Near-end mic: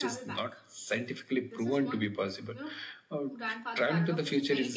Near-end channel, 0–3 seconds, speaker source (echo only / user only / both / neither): both